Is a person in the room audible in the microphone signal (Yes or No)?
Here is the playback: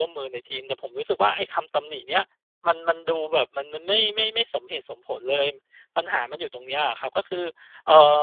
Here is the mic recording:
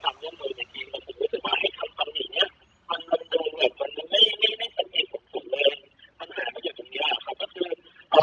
No